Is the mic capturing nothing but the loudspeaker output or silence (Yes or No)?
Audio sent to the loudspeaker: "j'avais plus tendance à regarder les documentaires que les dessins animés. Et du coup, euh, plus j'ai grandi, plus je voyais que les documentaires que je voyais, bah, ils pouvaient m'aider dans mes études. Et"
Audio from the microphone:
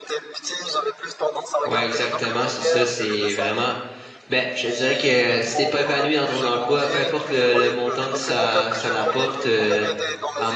No